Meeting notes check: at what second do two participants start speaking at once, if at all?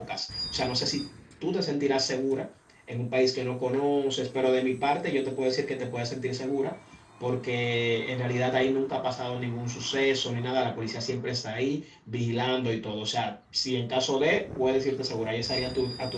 none

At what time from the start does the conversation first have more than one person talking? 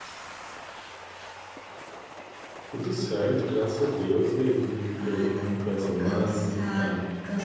4.9 s

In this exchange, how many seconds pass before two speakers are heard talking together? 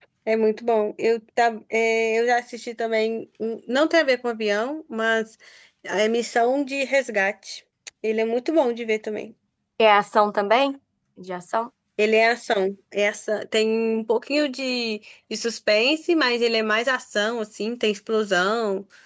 none

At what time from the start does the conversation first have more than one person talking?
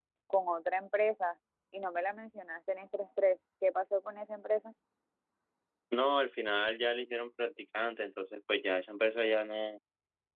none

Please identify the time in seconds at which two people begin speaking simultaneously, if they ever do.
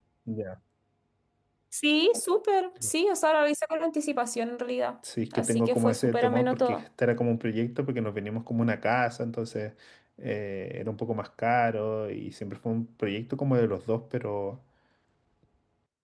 5.3 s

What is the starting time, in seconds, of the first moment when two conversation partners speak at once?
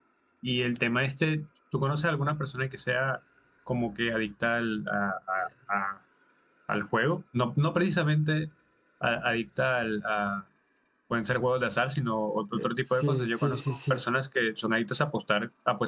12.5 s

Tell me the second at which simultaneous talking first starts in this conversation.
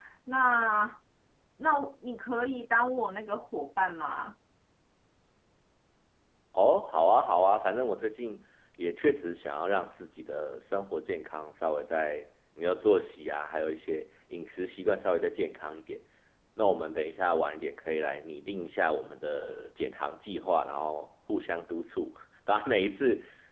none

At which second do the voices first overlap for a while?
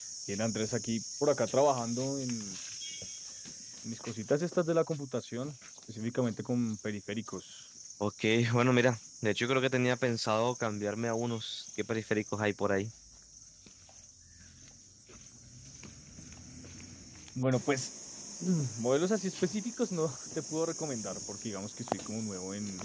none

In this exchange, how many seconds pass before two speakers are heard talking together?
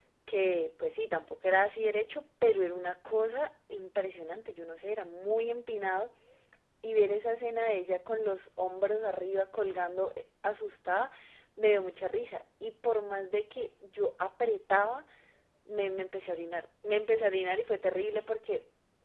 none

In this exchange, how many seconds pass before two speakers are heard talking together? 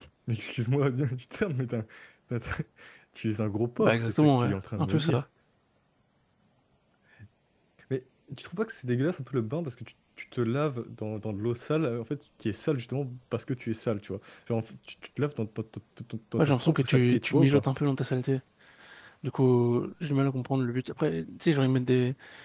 3.8 s

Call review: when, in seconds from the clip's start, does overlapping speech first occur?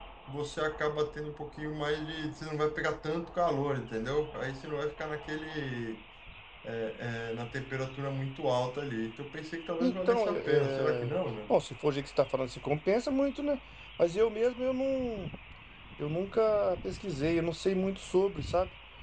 9.8 s

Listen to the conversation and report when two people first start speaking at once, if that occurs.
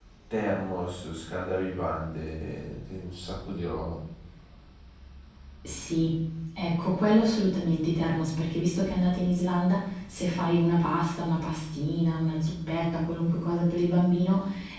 none

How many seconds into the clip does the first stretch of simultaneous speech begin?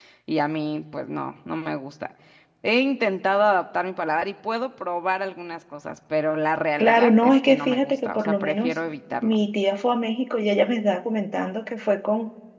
6.8 s

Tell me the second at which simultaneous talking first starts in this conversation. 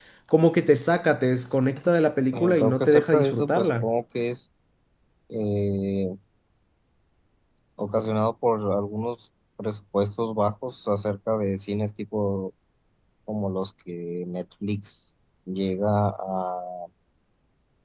2.3 s

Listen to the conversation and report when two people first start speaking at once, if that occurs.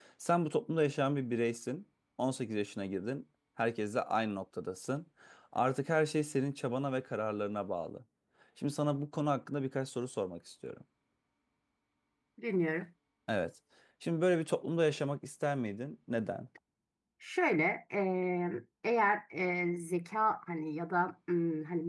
none

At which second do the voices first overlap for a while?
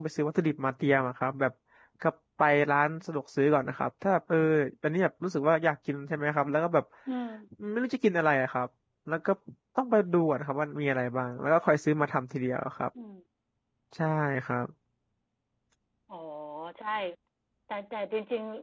none

